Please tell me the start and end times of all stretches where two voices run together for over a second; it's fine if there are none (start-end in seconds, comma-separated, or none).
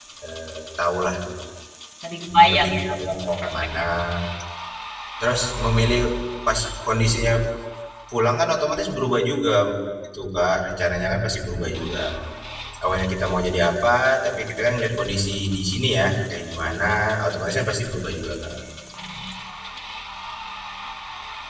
2.3-3.8